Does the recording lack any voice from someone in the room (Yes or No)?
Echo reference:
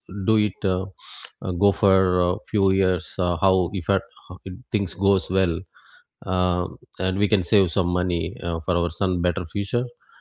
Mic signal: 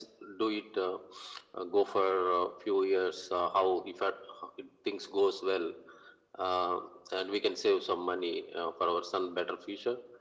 Yes